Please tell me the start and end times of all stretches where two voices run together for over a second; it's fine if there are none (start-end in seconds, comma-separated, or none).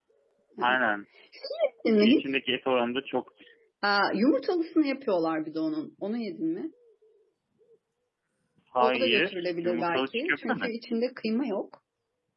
8.8-10.7